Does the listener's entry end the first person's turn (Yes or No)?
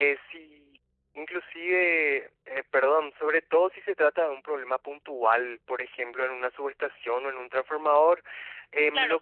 Yes